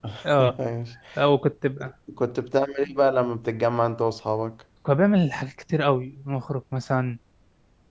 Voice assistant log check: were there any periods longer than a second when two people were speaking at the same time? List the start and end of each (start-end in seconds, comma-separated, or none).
none